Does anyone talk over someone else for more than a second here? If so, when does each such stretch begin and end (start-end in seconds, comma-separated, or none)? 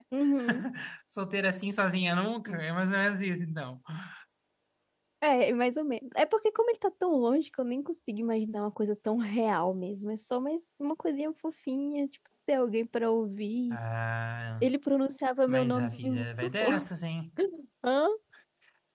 15.5-16.9